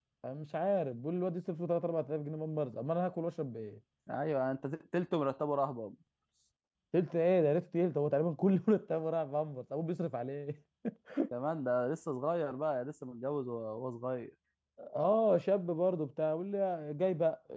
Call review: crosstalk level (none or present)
none